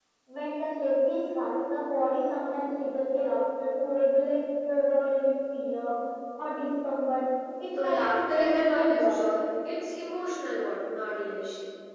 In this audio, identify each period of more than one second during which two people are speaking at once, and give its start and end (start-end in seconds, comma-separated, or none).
7.8-9.2